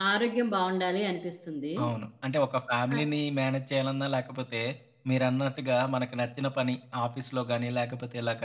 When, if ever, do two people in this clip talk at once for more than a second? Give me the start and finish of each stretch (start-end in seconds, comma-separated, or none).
none